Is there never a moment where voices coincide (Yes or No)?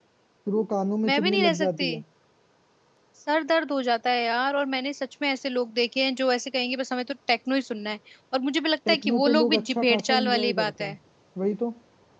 No